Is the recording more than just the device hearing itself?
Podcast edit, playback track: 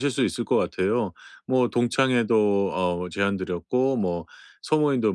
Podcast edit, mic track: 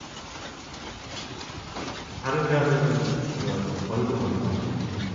Yes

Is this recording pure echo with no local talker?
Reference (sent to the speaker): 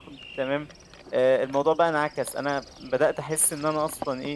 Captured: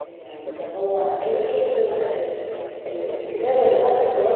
No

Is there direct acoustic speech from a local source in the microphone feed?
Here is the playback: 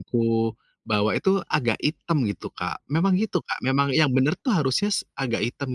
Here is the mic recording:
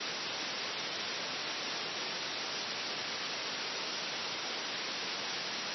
No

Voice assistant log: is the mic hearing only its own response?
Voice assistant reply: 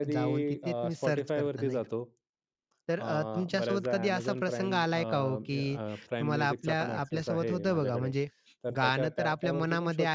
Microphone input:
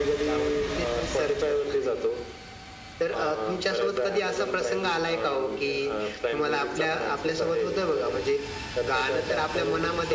Yes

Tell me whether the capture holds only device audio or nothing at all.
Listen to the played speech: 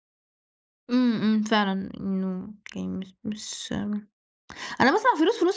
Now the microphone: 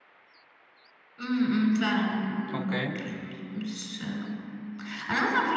No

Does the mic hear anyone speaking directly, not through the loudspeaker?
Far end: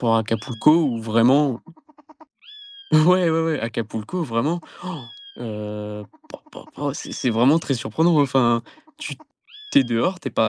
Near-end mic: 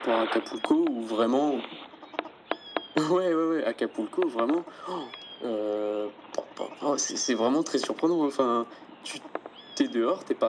No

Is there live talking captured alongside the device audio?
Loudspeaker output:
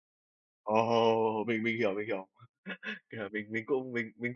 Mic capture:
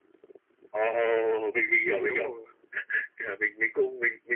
Yes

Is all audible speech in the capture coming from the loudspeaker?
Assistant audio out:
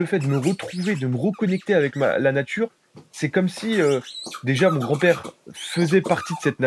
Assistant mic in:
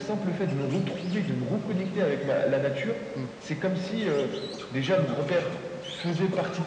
No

